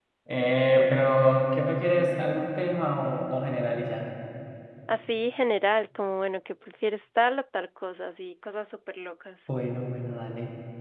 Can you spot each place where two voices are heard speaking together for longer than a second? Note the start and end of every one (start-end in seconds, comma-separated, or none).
none